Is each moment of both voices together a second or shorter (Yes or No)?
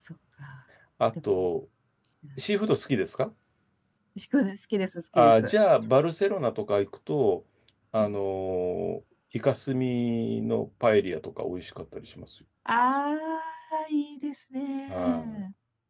Yes